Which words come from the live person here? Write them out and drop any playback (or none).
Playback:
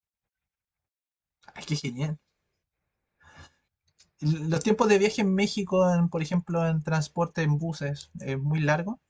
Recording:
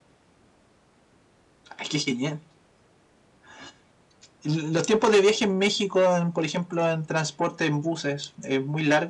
none